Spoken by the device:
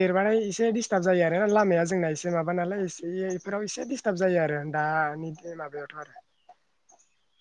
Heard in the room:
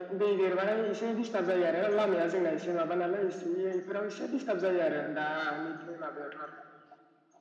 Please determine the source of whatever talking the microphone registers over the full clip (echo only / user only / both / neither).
echo only